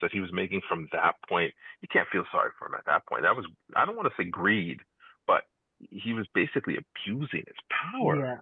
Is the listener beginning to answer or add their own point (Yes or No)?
Yes